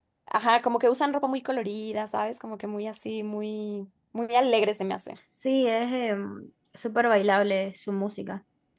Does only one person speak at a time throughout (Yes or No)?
Yes